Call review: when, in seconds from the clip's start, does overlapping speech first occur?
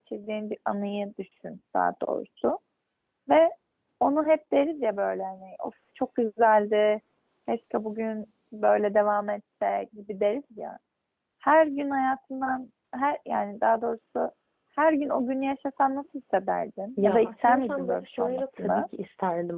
17.0 s

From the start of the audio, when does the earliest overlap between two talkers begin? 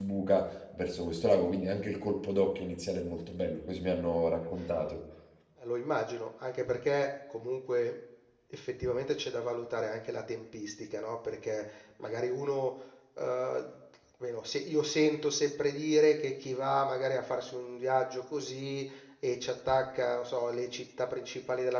none

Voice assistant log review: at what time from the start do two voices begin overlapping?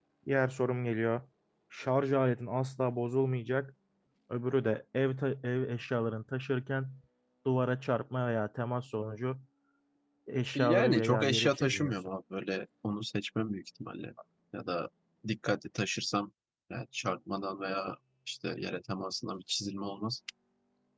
10.6 s

